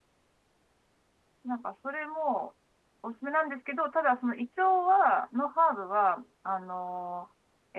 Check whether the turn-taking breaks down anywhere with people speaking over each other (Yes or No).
No